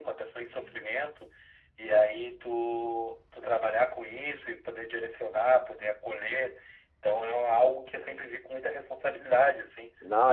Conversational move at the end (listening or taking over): taking over